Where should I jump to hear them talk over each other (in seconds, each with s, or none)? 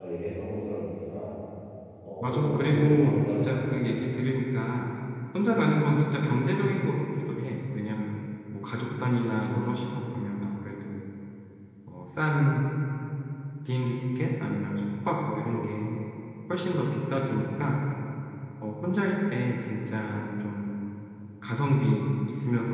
2.2 s